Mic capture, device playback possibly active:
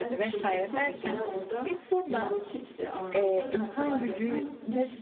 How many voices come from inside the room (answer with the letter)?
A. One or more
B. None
A